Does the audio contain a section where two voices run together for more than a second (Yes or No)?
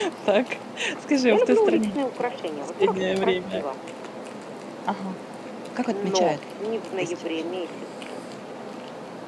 Yes